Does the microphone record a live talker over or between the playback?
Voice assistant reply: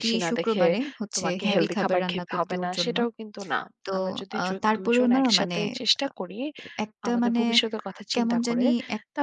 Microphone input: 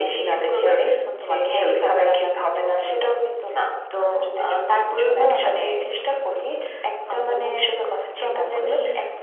No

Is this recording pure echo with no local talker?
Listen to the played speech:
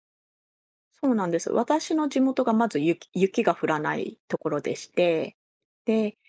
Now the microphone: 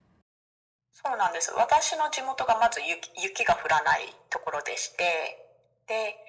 Yes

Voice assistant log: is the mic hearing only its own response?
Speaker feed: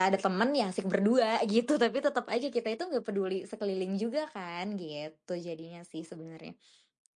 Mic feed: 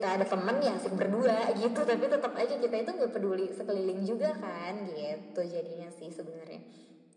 Yes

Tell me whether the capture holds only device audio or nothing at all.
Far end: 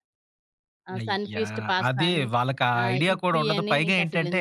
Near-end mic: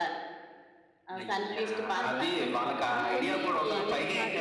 No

